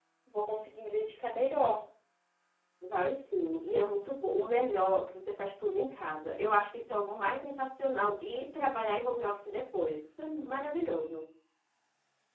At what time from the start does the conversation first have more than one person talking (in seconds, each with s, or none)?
none